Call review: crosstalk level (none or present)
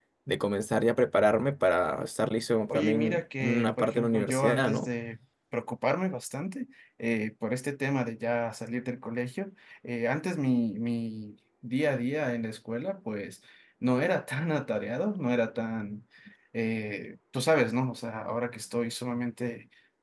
present